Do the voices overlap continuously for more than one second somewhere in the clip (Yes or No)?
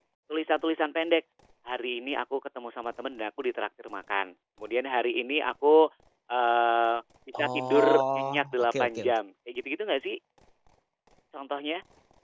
Yes